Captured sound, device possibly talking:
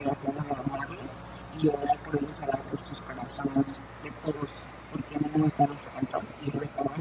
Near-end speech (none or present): none